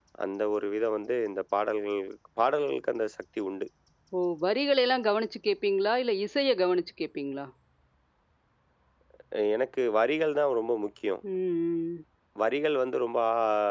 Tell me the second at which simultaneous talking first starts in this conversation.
none

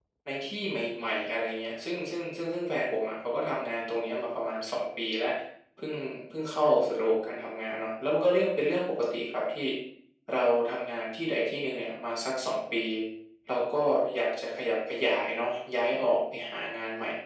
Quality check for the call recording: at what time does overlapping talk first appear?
none

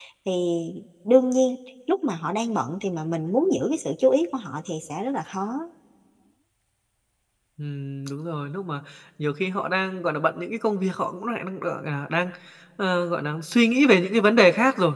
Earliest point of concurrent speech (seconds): none

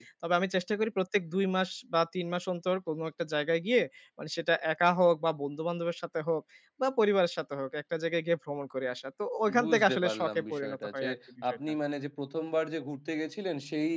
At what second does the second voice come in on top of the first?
9.5 s

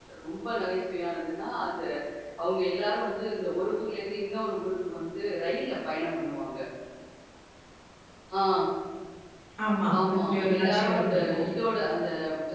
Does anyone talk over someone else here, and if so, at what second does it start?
10.1 s

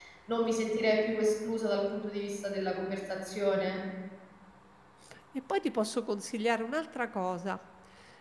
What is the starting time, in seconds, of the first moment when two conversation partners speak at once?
none

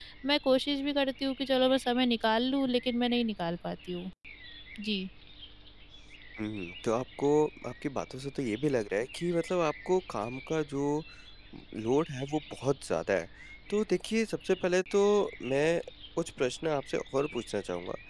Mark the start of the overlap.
none

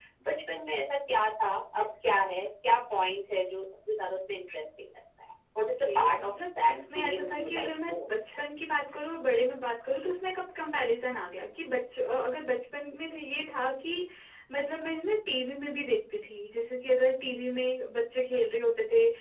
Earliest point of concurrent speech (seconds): 5.6 s

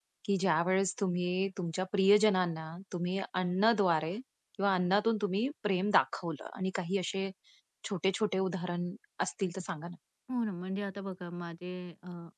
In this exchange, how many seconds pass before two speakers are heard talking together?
none

